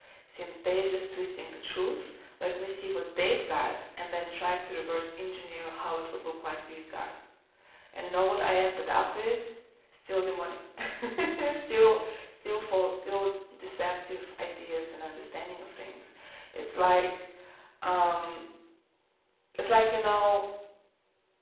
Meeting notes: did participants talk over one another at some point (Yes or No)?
No